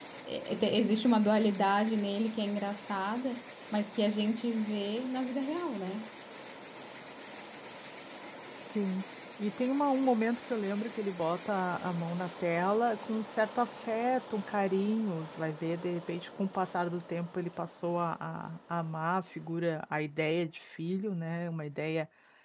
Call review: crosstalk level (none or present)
none